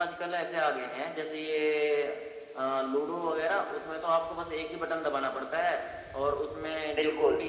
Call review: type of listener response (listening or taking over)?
listening